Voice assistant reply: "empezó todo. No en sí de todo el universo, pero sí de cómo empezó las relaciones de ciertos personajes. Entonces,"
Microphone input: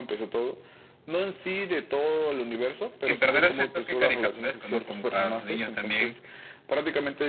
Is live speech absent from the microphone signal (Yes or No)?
No